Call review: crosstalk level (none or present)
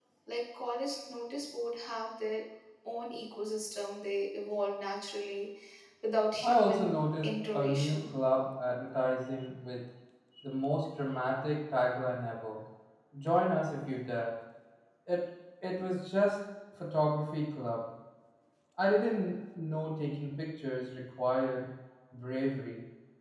present